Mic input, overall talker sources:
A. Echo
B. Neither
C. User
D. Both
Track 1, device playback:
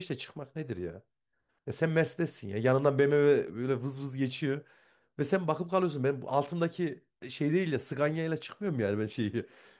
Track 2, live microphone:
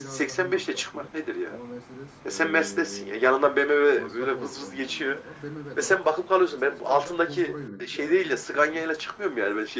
D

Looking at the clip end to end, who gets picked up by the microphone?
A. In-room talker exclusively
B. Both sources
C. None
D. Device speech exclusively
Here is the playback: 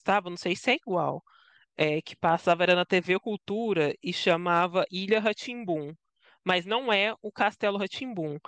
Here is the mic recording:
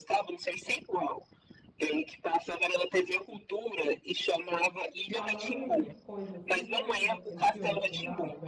B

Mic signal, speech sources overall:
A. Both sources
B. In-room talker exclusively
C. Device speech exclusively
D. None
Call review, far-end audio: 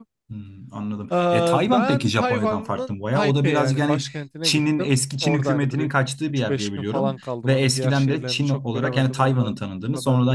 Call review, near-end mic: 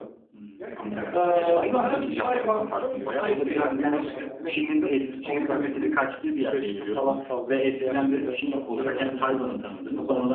A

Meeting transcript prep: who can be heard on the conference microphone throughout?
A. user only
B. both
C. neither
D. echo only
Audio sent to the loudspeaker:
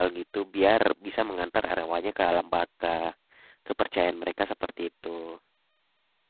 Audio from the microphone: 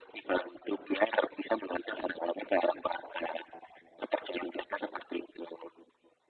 D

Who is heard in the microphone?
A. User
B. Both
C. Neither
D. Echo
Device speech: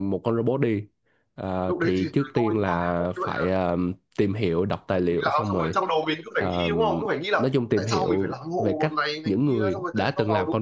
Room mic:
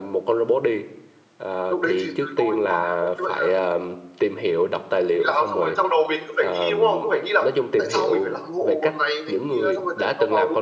D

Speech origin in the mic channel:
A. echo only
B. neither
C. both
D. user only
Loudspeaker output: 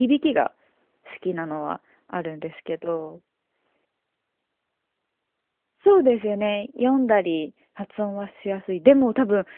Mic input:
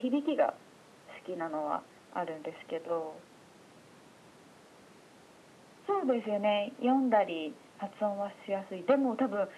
A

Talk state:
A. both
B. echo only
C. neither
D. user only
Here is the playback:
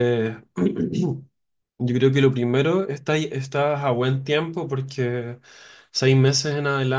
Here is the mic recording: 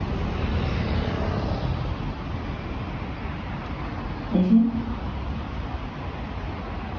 D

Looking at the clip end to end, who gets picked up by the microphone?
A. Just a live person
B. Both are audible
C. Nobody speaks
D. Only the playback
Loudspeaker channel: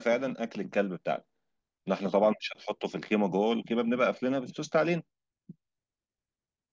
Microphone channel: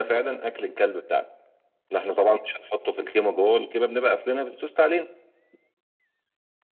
D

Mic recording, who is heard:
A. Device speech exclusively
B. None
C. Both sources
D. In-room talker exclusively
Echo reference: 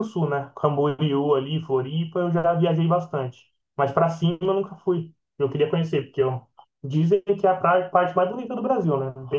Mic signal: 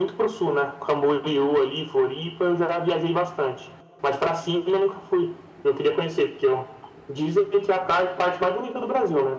A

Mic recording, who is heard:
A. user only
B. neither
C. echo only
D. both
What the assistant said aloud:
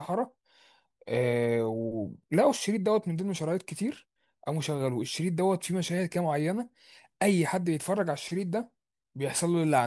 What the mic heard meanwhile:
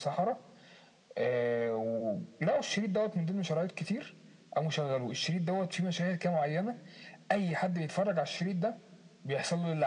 C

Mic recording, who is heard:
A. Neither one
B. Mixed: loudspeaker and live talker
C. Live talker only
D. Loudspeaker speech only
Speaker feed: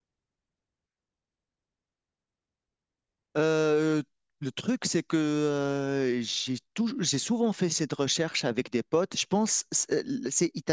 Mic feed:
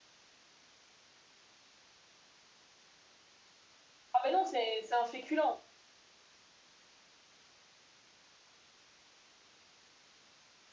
C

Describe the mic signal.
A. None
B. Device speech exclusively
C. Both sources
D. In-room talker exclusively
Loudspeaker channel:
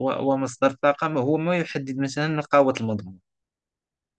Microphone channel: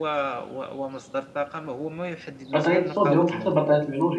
C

